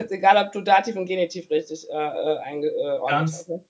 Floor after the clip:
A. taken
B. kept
A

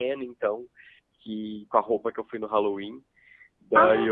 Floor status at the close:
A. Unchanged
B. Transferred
A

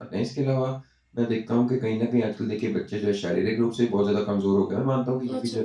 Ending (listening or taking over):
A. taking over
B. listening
B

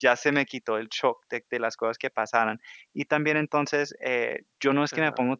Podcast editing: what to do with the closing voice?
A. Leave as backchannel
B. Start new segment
A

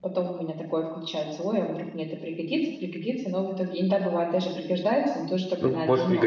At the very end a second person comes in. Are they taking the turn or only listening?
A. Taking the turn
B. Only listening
A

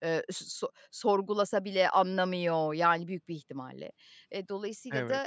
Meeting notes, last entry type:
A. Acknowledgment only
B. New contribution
A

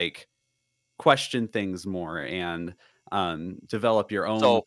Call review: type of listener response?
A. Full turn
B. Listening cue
B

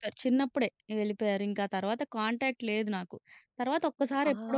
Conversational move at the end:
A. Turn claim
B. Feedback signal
B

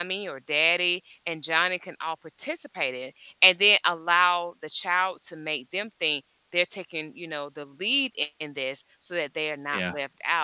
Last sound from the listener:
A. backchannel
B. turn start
A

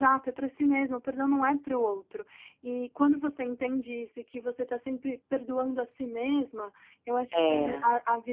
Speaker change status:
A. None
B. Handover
A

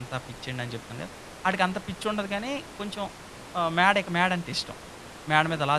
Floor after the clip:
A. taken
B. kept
A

